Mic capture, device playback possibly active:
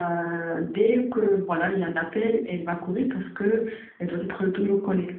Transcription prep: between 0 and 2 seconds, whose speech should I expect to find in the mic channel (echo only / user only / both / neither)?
echo only